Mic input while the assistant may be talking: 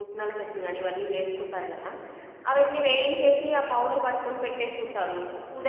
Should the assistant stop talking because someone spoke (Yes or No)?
Yes